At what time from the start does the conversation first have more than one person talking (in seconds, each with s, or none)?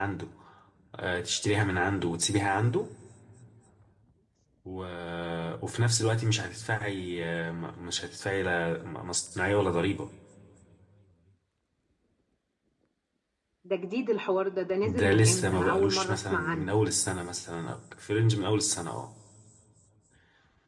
14.8 s